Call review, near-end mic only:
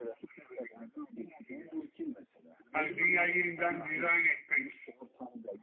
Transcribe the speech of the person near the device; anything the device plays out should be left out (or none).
Hani dünyayı yeniden dizayn etmek